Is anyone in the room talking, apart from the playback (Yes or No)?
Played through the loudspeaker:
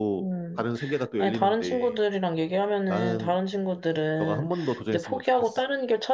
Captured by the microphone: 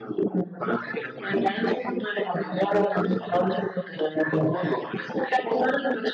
No